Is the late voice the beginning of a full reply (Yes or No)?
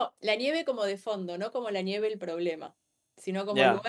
No